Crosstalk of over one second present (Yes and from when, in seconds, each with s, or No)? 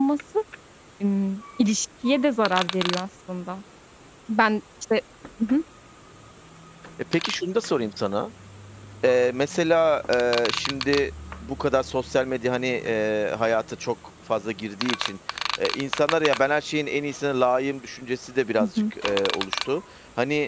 No